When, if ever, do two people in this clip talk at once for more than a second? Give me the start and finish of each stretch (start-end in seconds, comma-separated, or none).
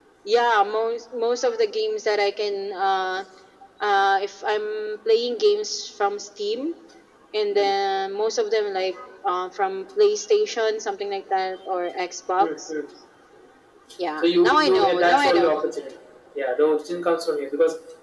14.2-15.5